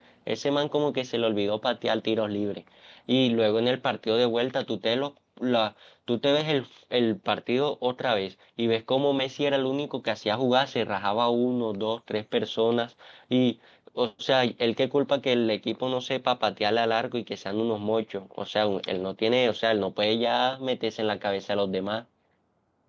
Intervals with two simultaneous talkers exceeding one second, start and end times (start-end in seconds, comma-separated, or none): none